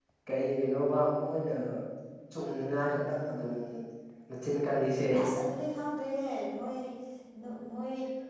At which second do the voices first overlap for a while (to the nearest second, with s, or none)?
none